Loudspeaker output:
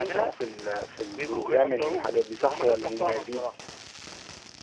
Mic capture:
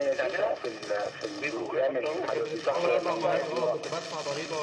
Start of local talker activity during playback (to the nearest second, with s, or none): 2 s